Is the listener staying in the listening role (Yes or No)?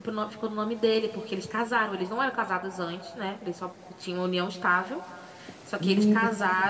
Yes